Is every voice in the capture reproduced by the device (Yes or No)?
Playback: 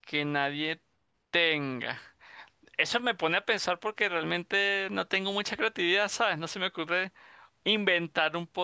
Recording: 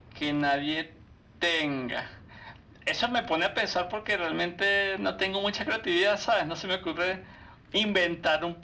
Yes